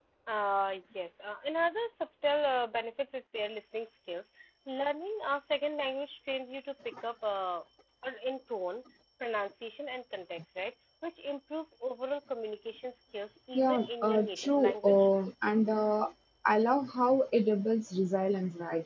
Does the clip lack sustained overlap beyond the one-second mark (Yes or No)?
No